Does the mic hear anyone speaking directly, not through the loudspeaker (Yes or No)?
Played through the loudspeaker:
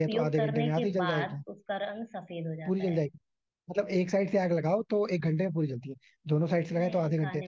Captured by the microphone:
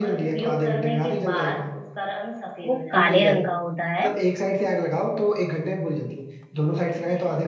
Yes